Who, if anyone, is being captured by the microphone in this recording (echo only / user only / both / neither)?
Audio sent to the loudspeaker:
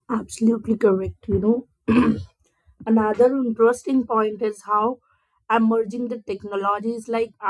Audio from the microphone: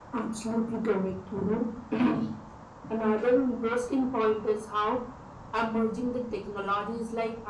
echo only